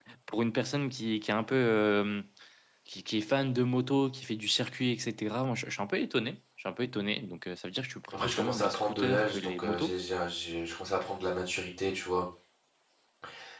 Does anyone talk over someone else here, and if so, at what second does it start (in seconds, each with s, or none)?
8.1 s